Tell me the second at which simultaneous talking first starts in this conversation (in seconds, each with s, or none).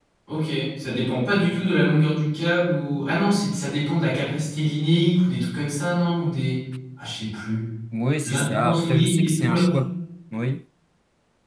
8.2 s